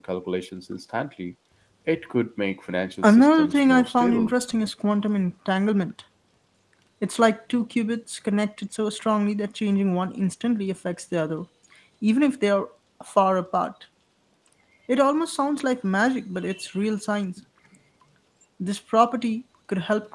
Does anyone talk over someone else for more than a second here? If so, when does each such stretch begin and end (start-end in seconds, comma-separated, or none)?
3.0-4.3